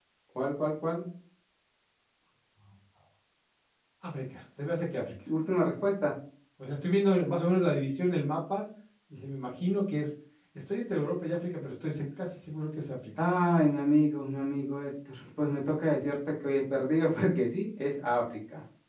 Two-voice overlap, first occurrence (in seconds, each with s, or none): none